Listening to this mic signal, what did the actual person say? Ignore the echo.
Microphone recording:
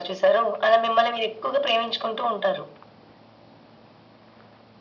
none

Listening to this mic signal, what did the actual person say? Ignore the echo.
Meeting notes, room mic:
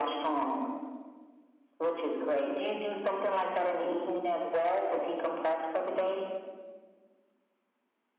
none

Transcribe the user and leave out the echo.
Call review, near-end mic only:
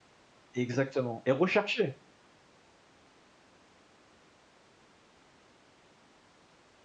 Exactement et recherché!

